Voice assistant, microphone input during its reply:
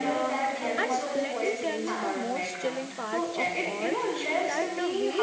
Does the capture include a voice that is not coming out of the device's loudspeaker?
Yes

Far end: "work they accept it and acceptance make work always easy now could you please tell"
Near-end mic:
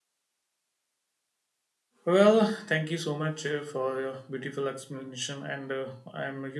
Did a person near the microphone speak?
Yes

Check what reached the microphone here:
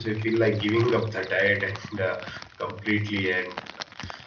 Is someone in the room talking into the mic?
Yes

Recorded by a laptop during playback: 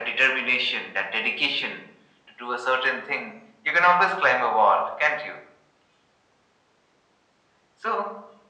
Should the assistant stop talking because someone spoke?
No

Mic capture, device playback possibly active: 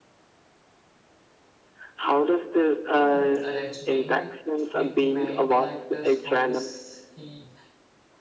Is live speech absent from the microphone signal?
No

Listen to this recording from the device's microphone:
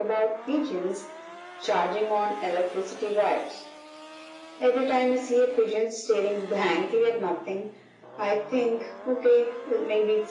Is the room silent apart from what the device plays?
Yes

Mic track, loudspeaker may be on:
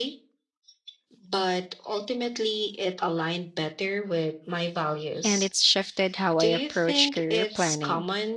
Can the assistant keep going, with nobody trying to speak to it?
No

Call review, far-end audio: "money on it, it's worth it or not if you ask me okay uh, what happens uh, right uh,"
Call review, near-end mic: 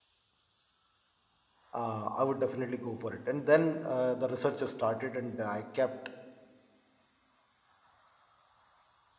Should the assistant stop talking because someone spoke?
Yes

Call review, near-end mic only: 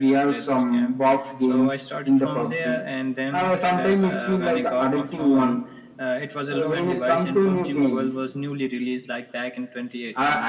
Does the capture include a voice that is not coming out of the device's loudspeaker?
No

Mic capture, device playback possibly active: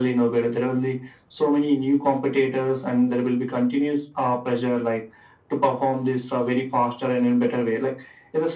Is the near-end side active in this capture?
No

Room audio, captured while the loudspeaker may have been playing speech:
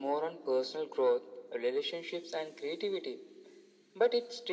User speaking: No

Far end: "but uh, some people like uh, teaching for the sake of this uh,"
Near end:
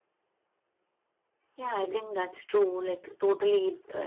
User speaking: Yes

